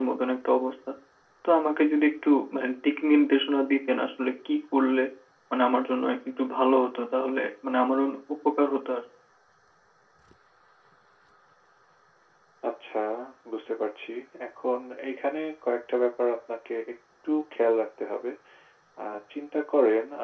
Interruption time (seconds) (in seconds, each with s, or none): none